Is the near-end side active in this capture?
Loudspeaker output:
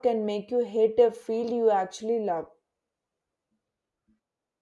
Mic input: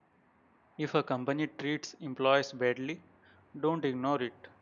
Yes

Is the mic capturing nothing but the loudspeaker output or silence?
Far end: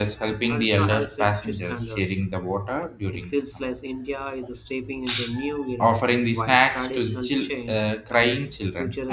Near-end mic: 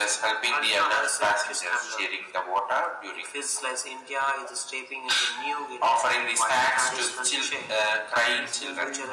No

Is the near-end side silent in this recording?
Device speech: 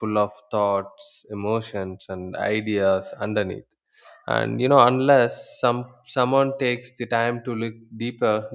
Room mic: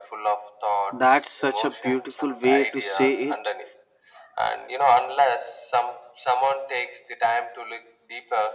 No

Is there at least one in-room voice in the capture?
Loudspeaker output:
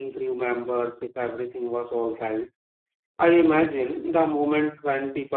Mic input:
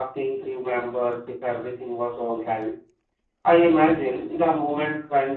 No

